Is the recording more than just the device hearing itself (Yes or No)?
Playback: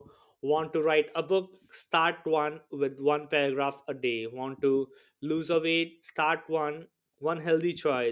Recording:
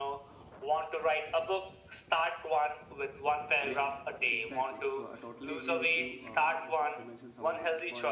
Yes